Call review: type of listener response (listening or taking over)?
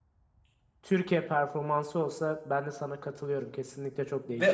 taking over